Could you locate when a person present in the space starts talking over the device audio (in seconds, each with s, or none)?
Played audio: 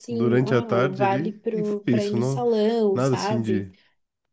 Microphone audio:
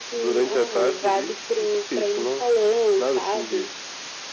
none